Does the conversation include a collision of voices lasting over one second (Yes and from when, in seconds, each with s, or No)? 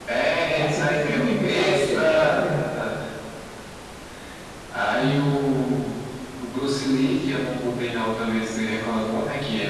Yes, from 0.6 s